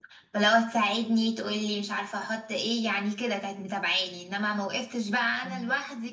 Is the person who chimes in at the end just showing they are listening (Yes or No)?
Yes